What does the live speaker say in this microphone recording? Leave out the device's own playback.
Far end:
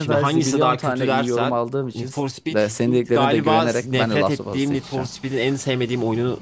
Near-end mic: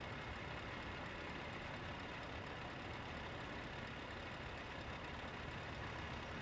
none

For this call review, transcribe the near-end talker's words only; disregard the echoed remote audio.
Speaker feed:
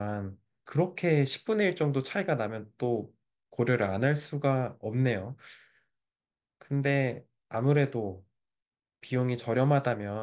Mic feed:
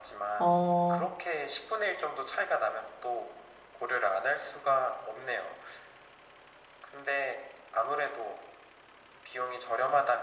어,

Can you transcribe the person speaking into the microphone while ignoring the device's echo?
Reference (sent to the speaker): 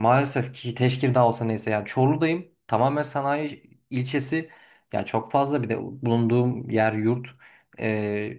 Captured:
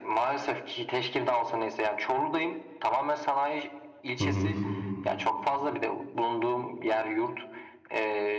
Hı hı.

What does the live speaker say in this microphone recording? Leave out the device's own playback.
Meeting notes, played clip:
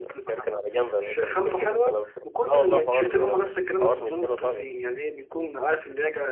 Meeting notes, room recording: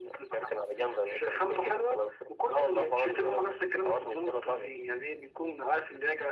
none

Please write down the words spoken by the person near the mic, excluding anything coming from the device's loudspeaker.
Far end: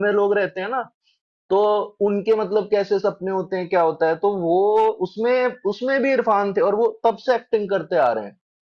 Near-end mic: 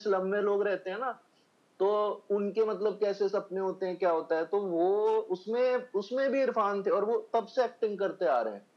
none

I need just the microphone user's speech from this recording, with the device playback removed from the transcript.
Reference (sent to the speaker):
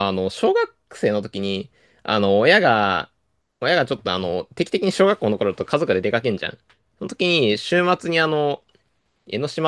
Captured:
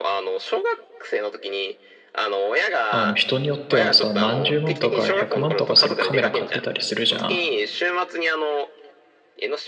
あの人によってはさ、何十万とか百万とかするカメラ買ってたりするじゃん。

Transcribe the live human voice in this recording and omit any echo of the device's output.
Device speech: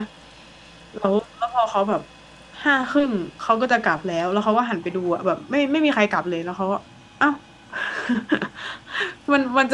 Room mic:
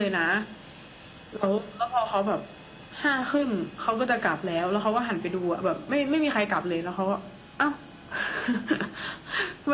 none

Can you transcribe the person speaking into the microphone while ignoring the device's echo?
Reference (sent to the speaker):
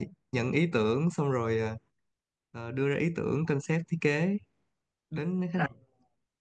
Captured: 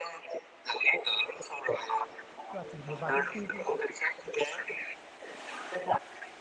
Tức là chỉ một vài công ty

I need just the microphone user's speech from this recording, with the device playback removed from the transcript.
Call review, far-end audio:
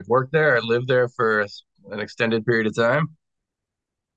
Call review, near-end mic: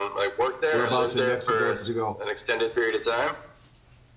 Whereabouts in Mexico did you go?

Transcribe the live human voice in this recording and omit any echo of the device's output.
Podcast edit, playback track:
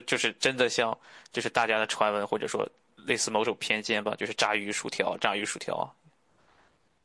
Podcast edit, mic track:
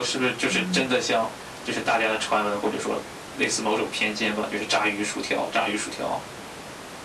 嗯，

